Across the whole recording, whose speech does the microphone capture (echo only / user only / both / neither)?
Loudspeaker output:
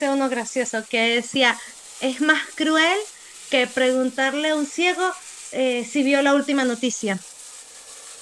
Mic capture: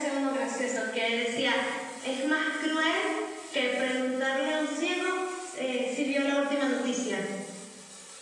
echo only